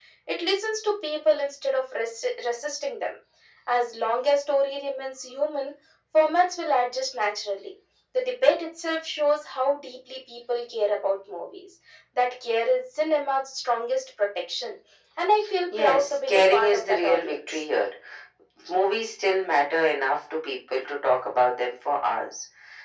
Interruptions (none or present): present